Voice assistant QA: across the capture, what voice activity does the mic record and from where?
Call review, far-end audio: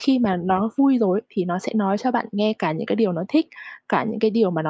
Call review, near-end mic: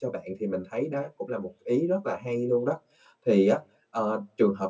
user only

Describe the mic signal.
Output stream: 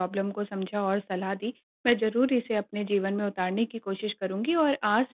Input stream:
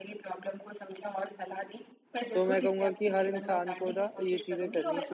both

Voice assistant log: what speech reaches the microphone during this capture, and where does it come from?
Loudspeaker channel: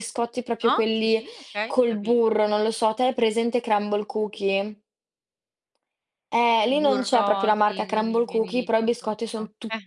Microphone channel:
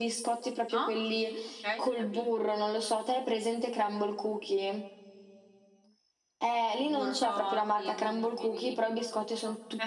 echo only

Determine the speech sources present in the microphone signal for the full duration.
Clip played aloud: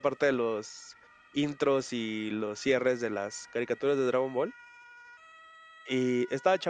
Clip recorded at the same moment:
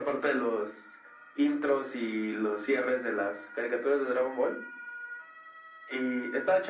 echo only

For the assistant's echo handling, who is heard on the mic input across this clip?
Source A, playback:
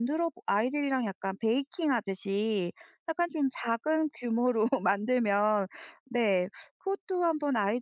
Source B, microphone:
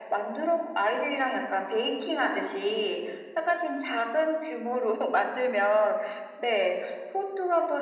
echo only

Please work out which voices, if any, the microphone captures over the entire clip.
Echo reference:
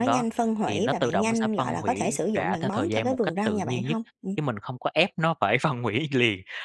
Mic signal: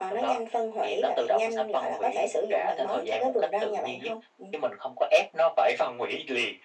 echo only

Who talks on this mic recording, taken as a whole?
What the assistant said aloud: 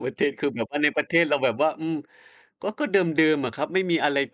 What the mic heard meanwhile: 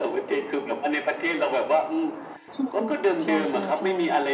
both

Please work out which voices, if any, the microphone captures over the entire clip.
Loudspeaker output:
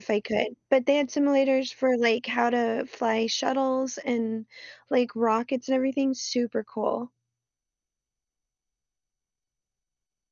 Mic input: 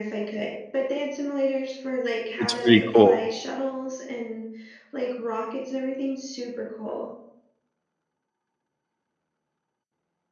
both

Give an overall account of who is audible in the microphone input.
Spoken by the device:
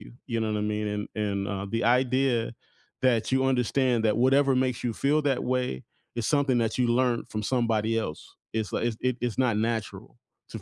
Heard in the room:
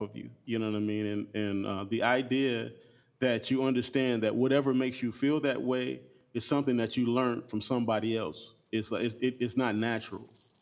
echo only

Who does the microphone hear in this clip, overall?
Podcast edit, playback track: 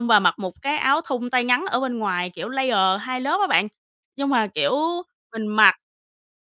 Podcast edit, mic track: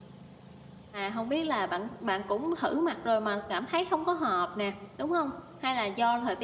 user only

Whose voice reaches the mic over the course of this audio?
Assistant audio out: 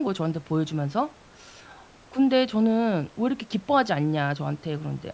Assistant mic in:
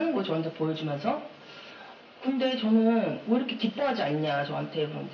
echo only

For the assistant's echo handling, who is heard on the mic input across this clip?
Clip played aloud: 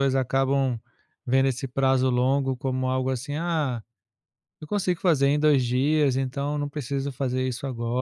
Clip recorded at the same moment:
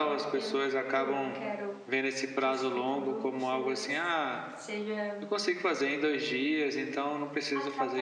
both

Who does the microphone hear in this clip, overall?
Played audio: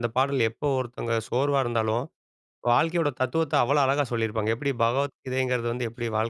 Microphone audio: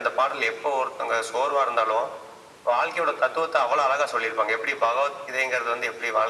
echo only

